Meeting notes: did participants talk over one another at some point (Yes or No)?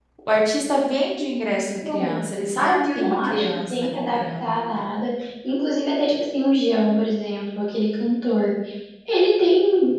Yes